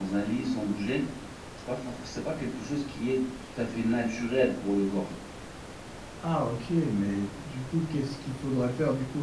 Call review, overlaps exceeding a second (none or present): none